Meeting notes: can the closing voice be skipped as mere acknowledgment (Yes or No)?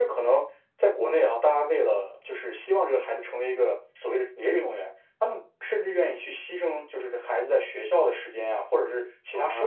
No